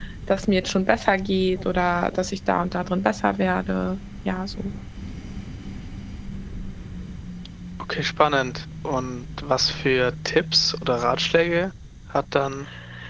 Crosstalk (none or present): none